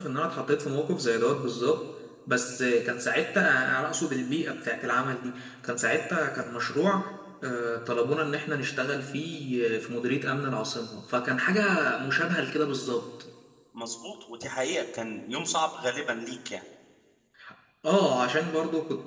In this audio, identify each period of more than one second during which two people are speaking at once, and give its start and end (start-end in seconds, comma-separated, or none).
none